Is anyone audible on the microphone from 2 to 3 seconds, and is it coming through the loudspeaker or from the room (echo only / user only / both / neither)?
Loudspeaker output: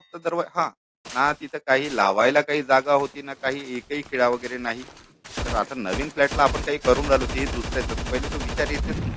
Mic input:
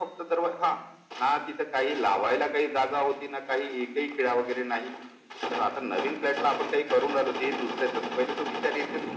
echo only